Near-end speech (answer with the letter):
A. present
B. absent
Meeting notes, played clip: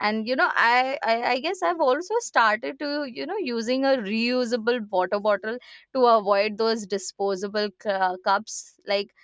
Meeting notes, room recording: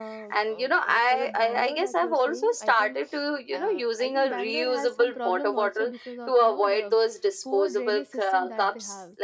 A